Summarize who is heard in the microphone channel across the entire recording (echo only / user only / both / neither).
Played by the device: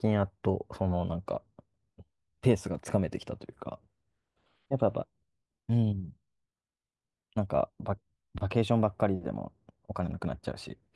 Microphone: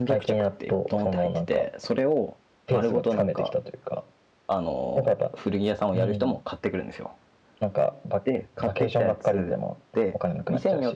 both